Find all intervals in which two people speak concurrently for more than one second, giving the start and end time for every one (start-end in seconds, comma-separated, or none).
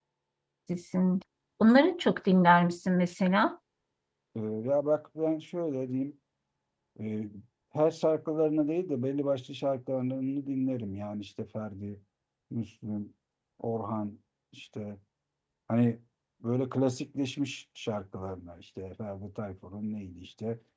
none